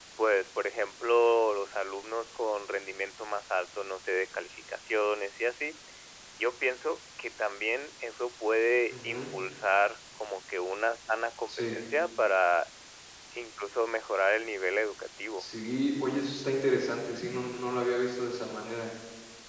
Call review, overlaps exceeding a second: none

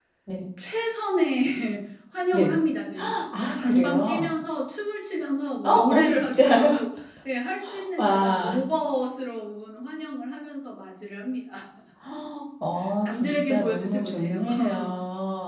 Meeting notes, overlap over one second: present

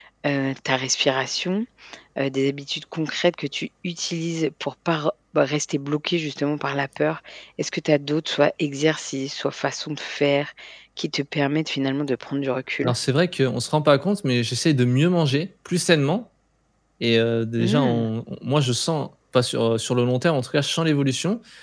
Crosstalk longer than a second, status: none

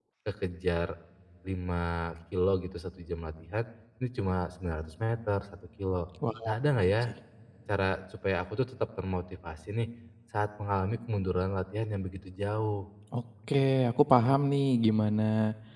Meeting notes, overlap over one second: none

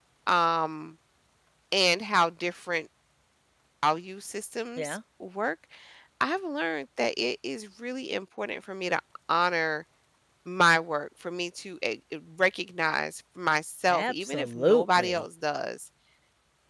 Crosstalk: present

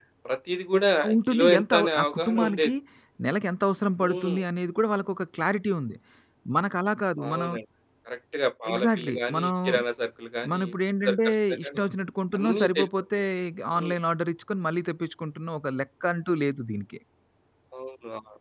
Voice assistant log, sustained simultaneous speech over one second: present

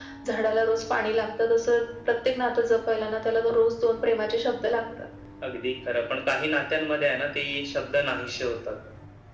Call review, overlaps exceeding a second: none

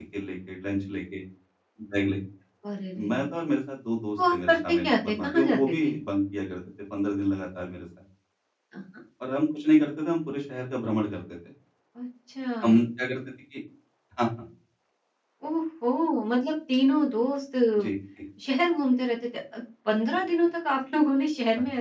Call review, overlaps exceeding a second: present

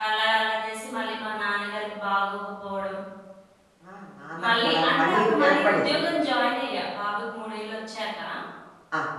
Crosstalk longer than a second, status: present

